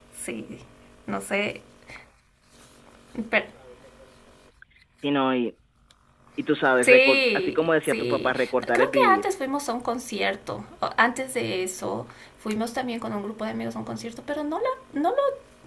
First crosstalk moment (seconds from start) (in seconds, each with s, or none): 6.8 s